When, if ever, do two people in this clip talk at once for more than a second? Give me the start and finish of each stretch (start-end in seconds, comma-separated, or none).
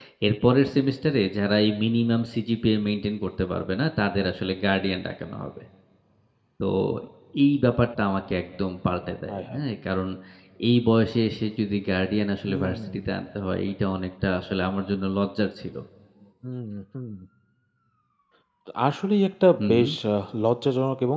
none